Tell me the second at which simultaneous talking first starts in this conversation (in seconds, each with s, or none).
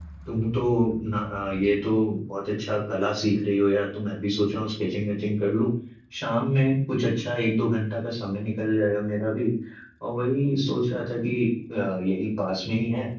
none